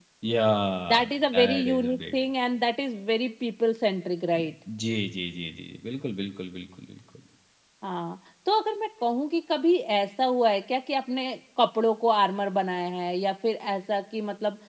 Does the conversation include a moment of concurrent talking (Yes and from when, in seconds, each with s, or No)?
Yes, from 0.9 s